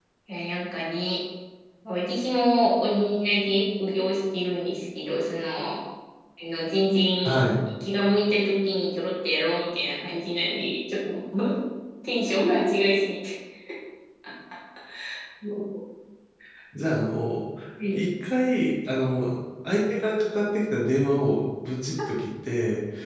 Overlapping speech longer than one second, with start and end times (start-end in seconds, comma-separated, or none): none